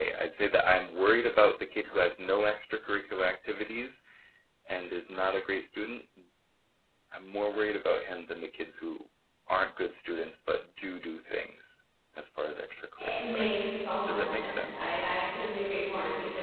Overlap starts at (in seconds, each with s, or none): 13.0 s